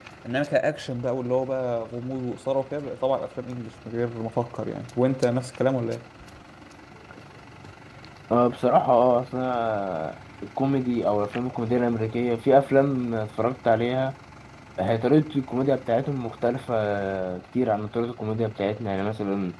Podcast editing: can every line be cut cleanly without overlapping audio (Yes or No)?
Yes